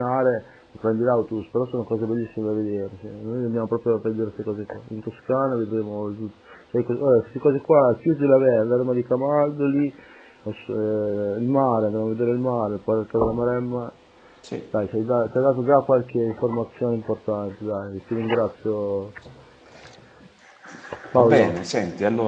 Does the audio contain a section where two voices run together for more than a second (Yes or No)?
No